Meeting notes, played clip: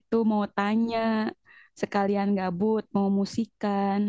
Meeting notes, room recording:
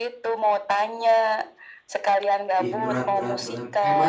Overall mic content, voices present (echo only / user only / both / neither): both